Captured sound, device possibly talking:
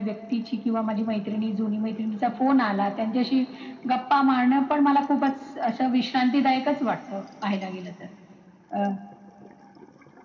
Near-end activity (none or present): none